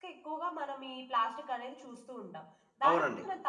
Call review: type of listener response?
listening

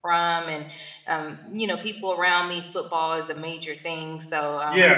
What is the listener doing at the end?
taking over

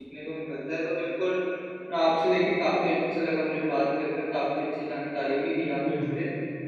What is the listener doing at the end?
listening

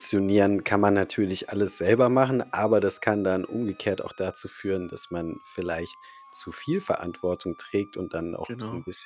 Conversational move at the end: listening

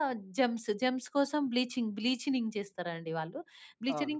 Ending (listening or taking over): listening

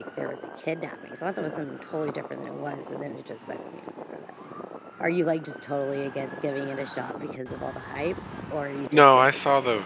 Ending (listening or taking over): taking over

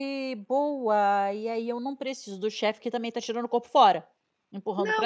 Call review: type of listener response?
taking over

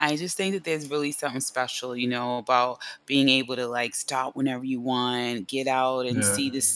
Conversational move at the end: listening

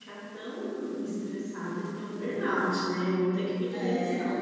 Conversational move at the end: listening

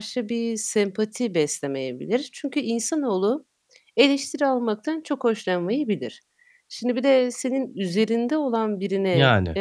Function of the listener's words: listening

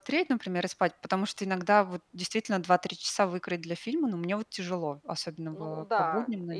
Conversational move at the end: taking over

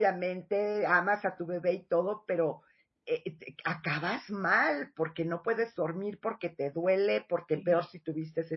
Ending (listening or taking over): listening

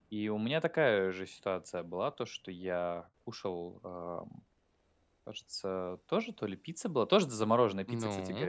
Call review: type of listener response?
listening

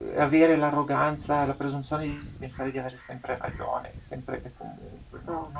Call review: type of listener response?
listening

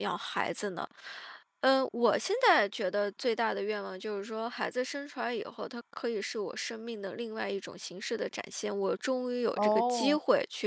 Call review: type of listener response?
listening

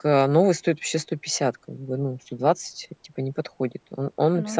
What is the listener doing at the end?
listening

